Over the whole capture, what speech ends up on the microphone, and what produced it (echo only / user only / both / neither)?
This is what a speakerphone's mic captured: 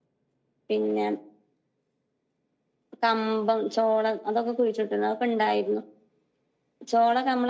echo only